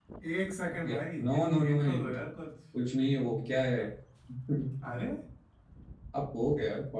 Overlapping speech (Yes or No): Yes